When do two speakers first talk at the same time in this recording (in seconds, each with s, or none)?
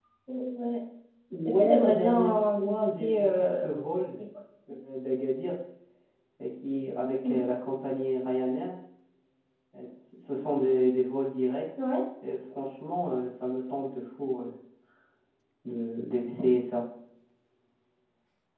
1.4 s